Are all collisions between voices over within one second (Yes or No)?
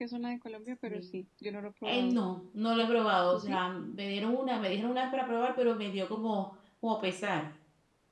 Yes